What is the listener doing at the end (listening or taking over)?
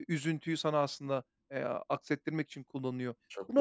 listening